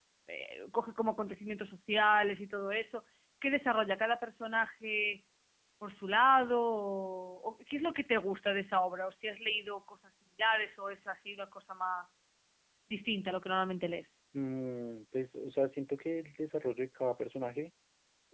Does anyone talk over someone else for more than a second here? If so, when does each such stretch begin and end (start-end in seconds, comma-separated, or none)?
none